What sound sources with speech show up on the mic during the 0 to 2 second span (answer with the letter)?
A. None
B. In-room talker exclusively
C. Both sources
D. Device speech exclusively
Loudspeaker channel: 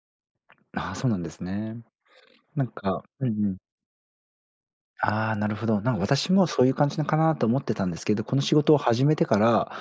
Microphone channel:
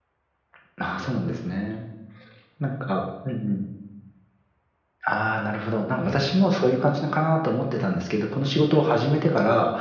D